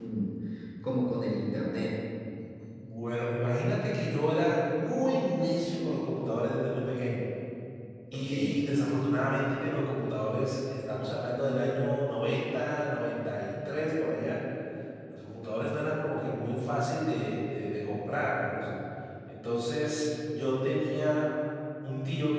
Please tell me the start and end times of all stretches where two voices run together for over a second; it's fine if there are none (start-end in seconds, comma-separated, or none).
none